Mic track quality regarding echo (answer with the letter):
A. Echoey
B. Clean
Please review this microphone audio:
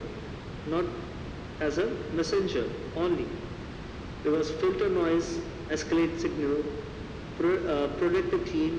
A